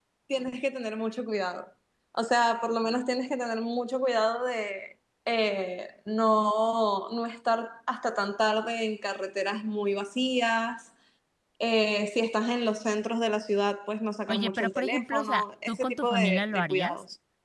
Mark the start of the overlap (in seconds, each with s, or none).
14.3 s